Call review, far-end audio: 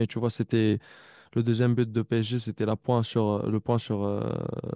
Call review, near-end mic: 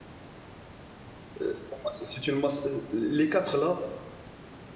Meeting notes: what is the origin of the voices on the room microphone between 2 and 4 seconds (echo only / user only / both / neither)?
user only